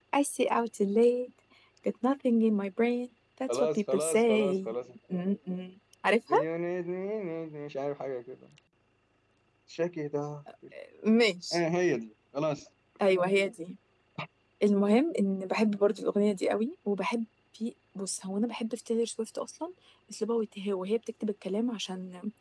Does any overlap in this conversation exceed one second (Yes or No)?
Yes